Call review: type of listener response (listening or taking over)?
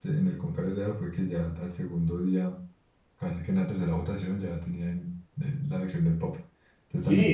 taking over